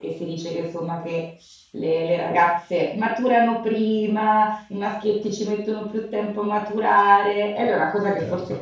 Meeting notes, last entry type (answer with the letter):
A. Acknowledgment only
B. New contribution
A